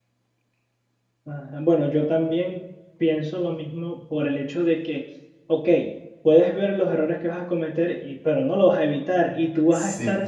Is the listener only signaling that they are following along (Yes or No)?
Yes